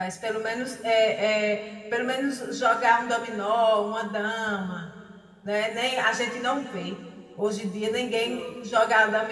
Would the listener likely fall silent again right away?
Yes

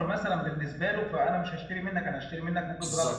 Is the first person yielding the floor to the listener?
Yes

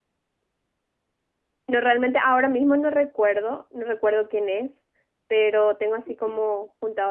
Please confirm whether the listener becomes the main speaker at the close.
No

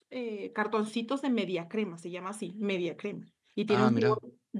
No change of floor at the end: Yes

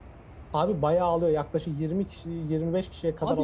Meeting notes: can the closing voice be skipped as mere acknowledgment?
No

